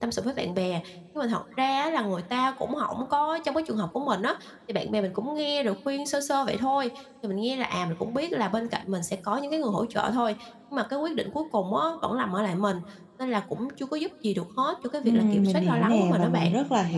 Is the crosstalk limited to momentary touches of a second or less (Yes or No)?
No